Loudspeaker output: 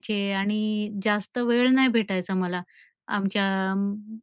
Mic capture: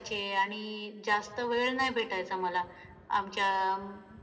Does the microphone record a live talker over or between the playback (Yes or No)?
No